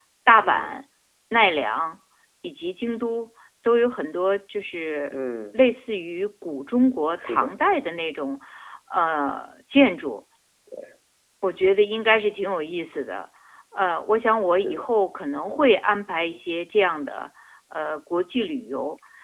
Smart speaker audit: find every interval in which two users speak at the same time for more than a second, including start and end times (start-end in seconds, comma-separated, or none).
none